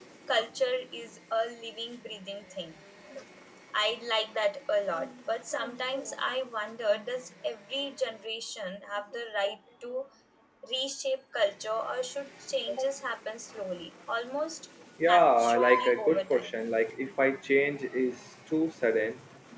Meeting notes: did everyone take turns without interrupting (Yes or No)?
No